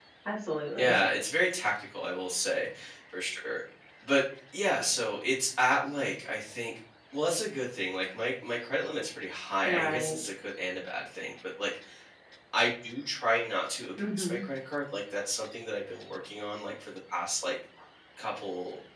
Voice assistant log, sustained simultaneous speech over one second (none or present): none